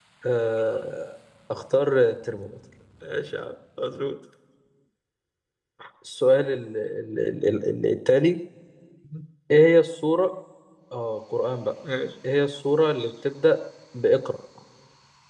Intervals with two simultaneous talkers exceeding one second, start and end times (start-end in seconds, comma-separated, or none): none